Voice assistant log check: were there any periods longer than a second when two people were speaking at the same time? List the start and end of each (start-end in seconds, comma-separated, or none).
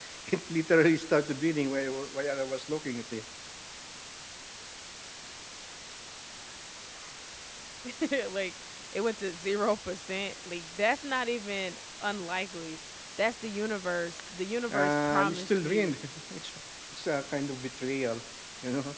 14.7-16.0